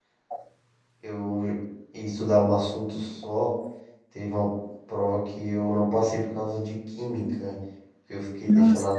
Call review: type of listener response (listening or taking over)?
listening